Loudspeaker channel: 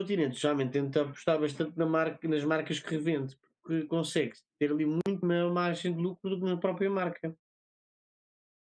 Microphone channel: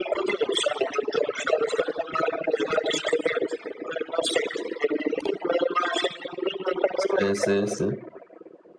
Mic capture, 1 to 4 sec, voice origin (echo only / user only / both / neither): echo only